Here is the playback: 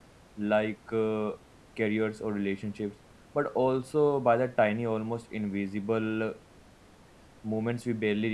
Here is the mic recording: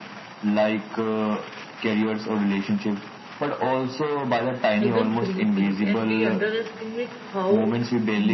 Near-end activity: present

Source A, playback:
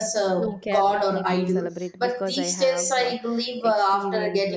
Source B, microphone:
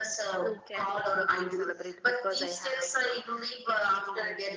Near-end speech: none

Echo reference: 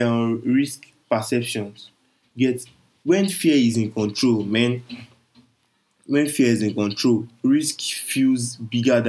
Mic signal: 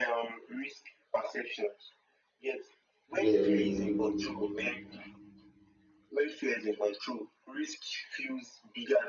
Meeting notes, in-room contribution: present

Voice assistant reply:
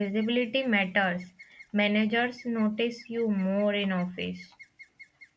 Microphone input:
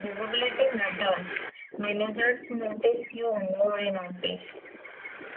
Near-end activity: none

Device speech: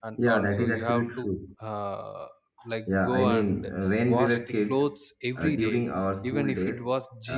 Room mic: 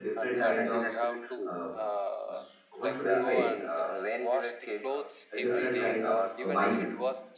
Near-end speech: present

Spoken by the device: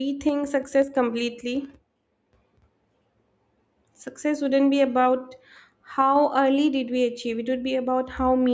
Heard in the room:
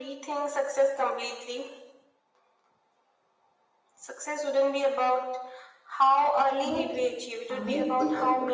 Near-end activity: present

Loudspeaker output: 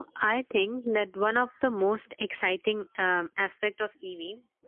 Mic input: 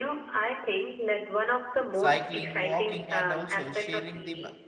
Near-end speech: present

